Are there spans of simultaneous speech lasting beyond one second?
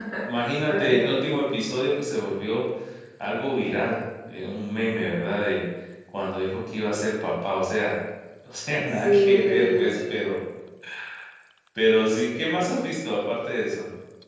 Yes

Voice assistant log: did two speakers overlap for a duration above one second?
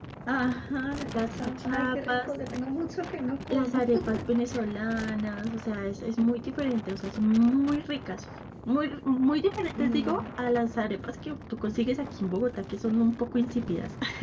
Yes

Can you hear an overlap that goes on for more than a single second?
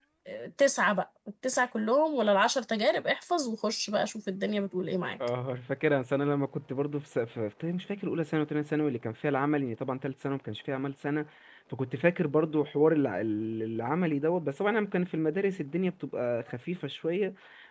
No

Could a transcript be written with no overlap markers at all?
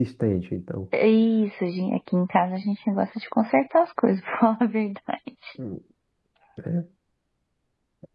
Yes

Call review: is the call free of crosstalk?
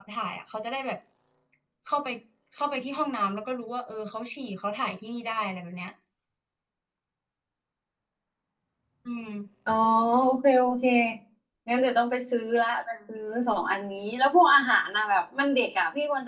Yes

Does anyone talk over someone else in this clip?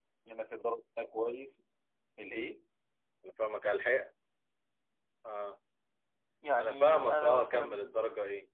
Yes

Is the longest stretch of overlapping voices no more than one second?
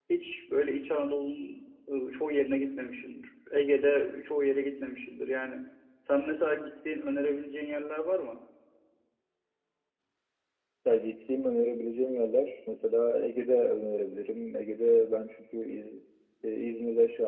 Yes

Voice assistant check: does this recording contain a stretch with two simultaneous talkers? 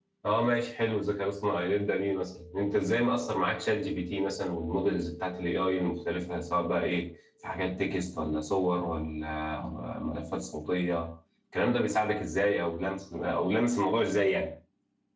No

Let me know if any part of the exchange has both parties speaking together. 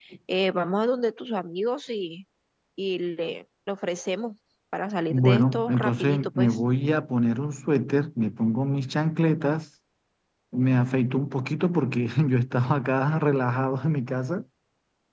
Yes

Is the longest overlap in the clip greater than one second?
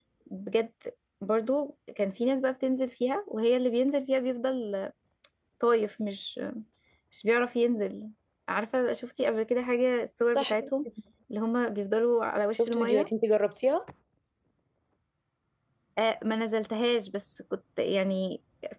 No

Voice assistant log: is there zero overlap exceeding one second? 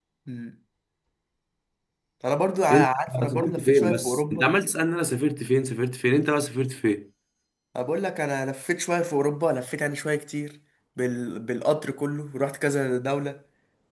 No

